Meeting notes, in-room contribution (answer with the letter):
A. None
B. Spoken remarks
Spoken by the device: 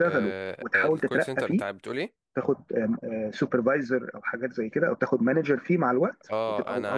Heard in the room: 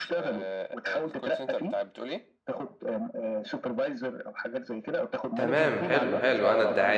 B